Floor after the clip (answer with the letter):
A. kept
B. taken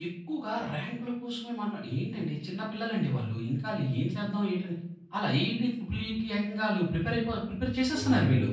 B